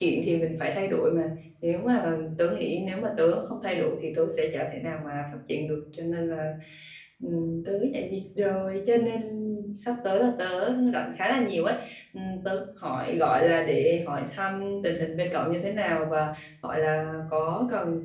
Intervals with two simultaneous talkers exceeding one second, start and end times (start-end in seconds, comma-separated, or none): none